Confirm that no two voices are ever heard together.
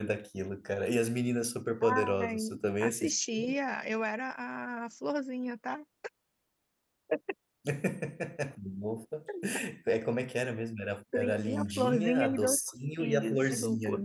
No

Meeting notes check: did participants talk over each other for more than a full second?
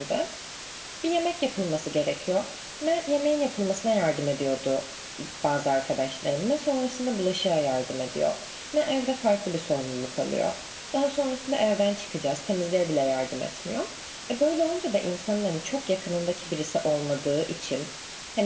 No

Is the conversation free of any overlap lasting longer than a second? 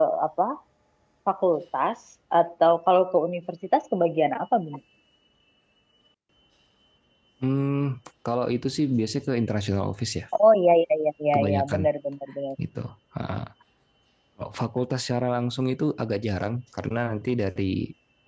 Yes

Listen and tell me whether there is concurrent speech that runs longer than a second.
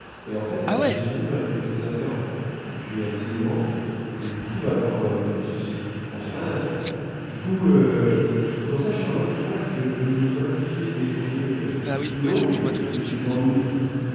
Yes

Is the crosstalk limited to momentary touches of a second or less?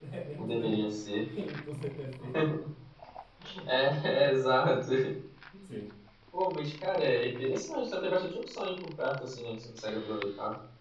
Yes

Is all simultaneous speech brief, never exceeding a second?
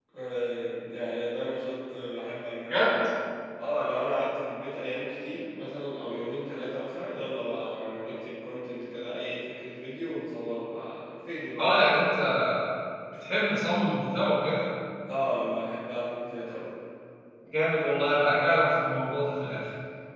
Yes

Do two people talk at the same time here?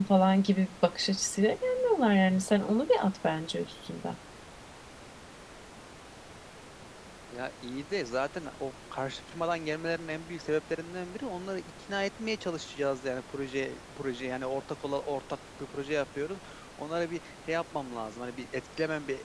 No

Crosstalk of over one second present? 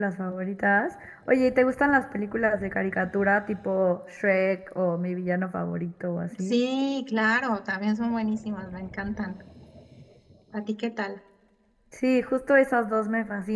No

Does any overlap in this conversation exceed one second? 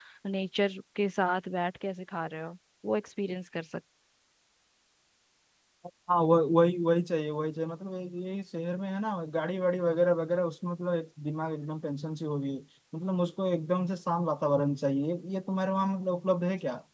No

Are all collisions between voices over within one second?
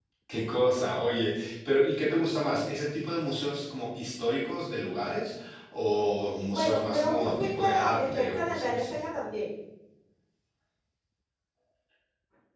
No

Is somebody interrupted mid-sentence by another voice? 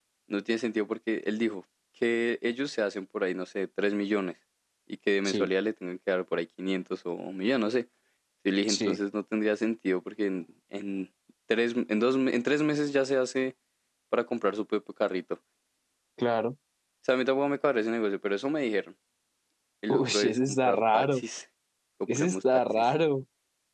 Yes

